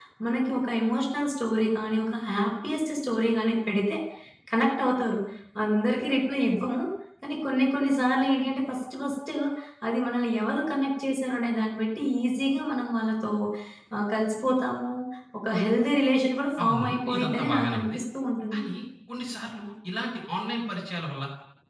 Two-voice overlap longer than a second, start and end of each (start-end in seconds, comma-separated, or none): 16.6-18.0